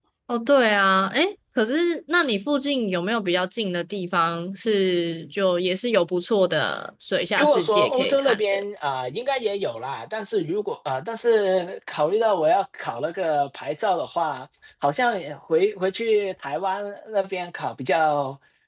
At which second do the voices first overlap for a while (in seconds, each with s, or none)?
7.4 s